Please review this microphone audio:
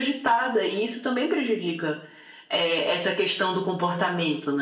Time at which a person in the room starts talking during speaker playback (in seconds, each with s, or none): none